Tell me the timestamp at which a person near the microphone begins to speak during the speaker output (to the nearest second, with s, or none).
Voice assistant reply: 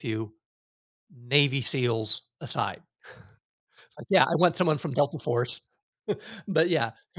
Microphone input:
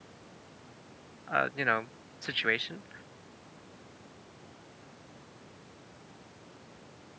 1 s